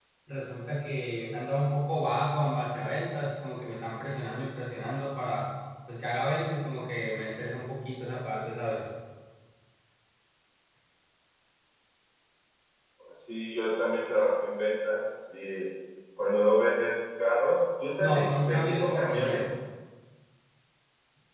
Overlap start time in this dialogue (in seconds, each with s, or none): 18.0 s